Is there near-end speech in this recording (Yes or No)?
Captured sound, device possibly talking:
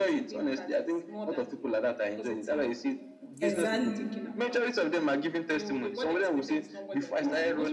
Yes